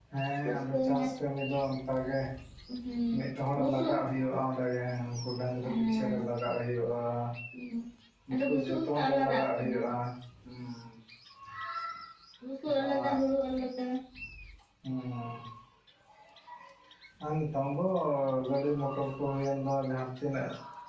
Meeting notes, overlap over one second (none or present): present